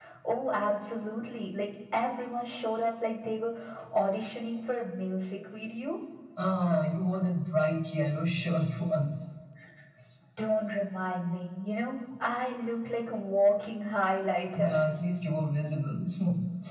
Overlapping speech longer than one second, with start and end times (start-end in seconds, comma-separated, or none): none